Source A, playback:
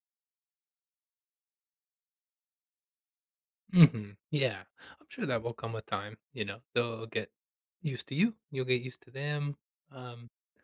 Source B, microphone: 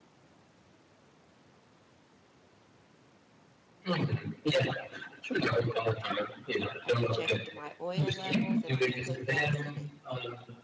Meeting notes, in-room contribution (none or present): present